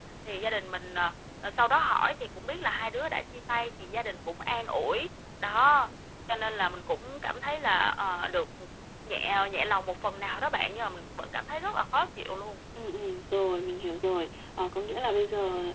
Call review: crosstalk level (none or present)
none